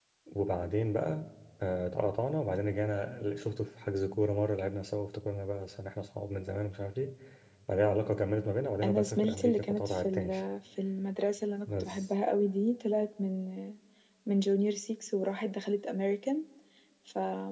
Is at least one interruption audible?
Yes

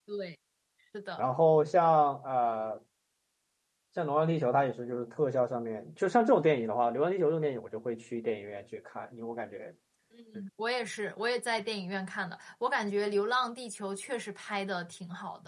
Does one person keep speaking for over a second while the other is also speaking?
No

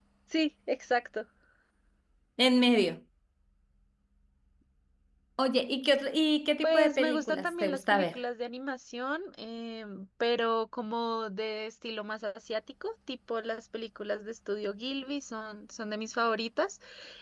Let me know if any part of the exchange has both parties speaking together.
Yes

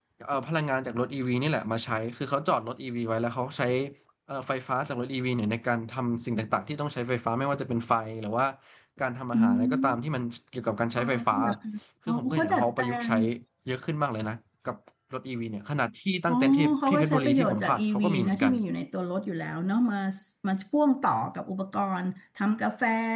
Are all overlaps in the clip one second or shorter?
No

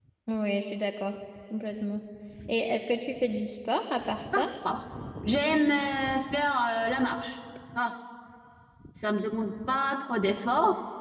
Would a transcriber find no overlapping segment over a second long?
Yes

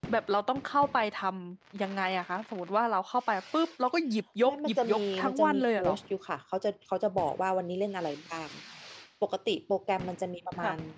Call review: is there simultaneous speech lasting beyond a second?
Yes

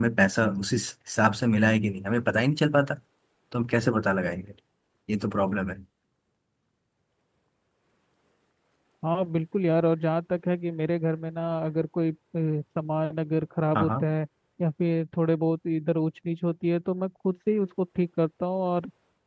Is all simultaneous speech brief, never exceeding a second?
Yes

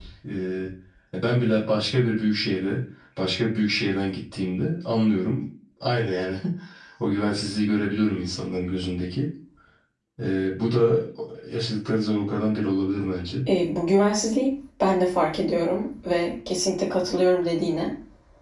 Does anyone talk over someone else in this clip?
No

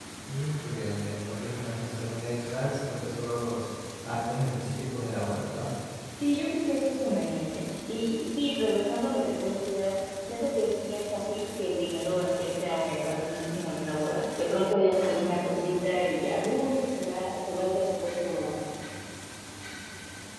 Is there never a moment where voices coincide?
Yes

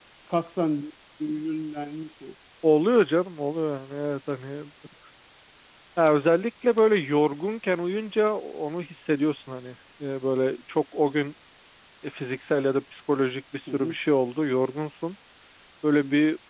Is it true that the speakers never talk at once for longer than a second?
Yes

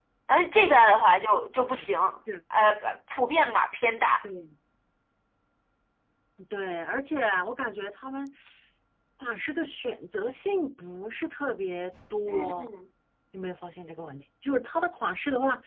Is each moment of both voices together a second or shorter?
Yes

